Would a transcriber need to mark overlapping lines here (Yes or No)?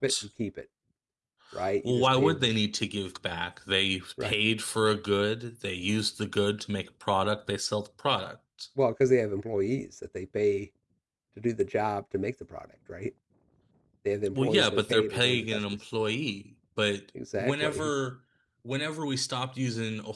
Yes